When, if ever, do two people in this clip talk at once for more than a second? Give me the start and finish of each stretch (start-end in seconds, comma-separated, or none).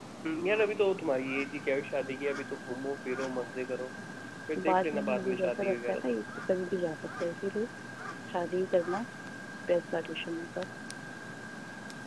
4.6-6.2